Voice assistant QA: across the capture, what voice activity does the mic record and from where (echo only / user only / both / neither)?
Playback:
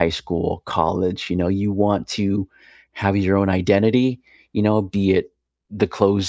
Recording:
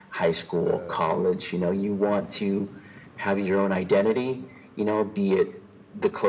both